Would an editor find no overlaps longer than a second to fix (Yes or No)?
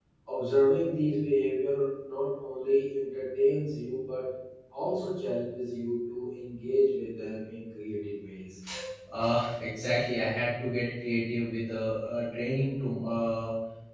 Yes